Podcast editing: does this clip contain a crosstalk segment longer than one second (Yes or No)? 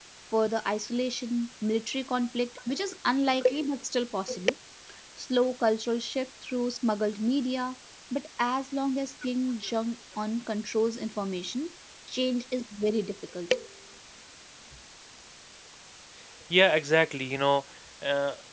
No